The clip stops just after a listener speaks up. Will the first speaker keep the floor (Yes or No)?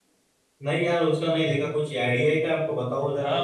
No